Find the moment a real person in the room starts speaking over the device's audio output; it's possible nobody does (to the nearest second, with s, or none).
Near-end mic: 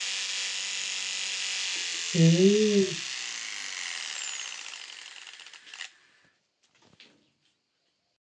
2 s